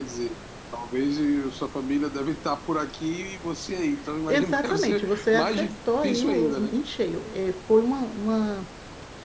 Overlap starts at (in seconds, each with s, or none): 4.3 s